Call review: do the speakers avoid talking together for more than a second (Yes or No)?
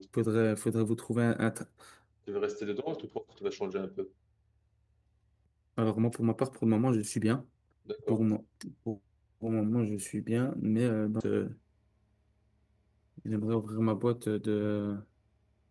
Yes